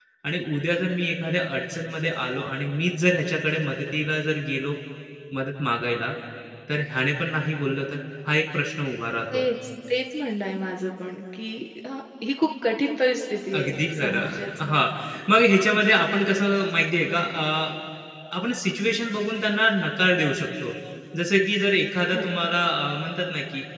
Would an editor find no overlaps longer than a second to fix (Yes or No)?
No